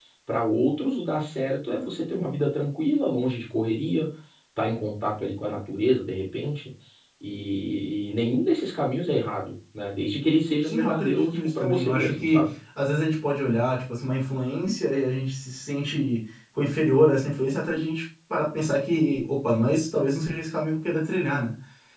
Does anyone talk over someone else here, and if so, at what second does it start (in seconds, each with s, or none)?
10.6 s